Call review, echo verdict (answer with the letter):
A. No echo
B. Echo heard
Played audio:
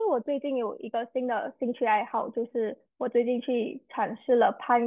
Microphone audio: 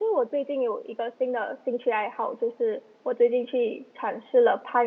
B